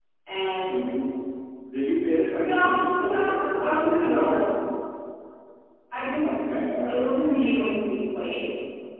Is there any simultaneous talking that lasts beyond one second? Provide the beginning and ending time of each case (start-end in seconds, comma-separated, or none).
2.4-4.4